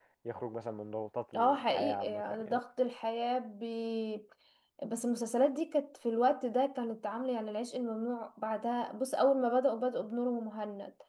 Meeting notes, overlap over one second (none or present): present